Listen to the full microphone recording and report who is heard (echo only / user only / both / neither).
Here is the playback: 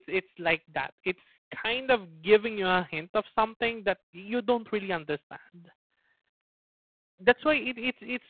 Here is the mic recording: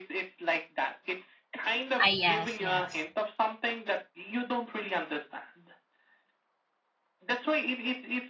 both